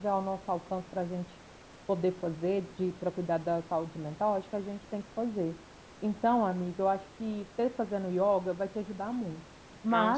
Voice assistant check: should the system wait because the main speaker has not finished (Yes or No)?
Yes